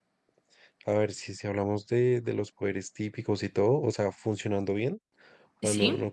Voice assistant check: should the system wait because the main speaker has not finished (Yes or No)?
Yes